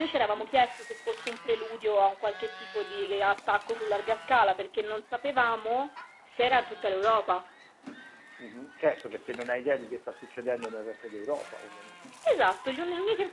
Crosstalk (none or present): none